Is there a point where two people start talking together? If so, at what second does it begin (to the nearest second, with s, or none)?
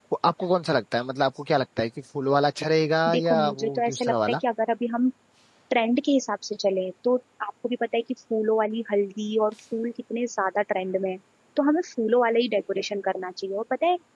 3 s